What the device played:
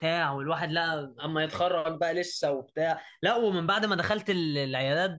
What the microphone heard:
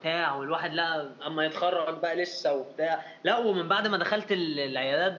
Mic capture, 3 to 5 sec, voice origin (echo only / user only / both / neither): echo only